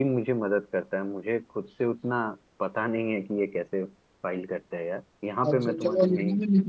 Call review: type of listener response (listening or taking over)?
taking over